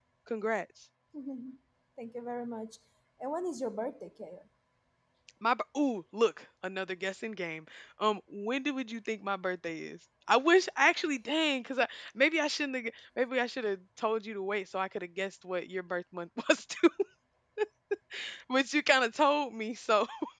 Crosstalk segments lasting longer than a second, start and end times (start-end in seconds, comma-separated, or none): none